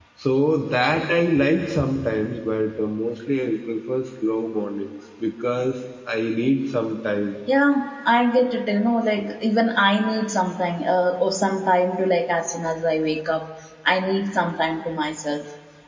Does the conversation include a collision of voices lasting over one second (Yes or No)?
No